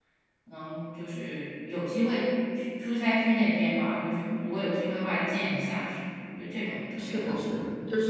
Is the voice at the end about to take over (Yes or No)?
Yes